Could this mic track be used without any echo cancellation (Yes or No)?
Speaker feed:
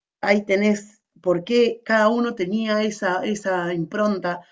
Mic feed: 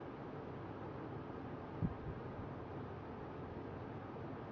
Yes